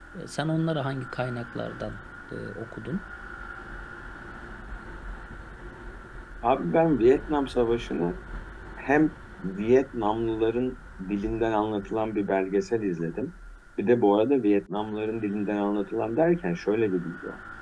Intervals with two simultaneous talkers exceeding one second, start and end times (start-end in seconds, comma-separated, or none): none